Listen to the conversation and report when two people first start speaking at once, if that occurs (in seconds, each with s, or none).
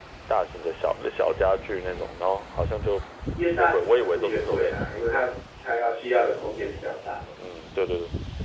3.5 s